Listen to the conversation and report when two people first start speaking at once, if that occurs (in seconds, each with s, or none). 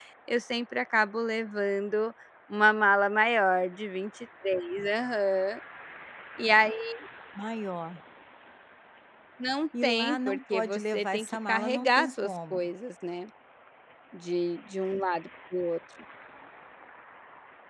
9.8 s